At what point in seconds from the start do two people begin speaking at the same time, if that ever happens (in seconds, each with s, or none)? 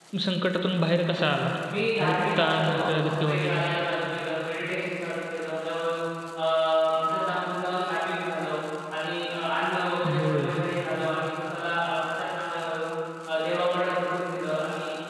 2.0 s